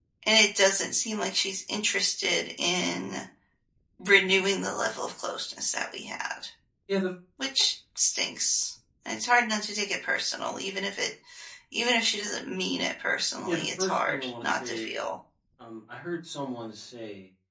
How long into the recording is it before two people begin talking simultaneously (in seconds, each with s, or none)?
13.5 s